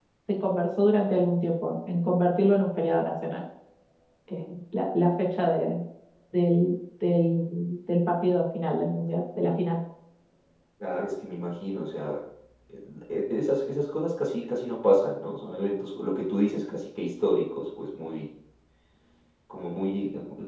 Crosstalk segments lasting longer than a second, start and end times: none

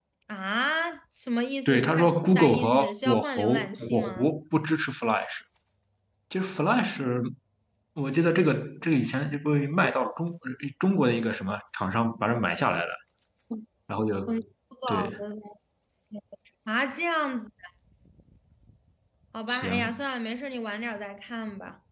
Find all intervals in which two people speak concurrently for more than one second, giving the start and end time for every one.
1.6-4.3

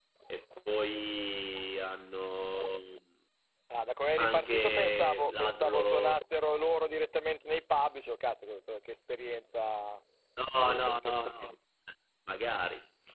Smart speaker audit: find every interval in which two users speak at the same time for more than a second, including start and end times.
4.2-6.1

